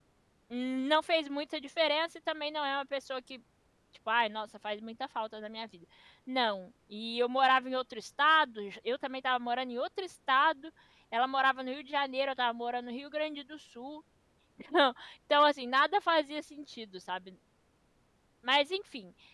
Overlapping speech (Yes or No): No